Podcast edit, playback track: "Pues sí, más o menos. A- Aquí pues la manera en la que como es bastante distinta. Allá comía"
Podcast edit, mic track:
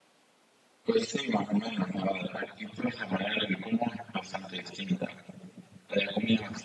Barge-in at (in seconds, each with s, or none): none